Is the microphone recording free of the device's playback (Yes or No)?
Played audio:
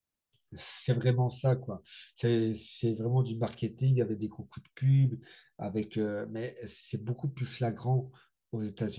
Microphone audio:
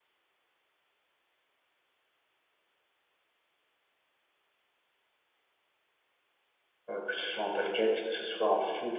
Yes